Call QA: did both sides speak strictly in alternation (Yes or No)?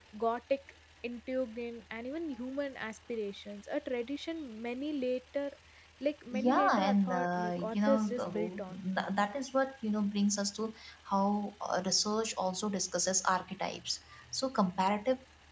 No